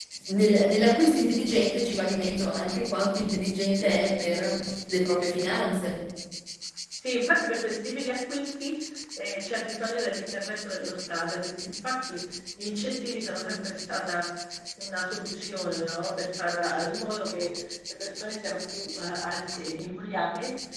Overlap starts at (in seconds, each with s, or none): none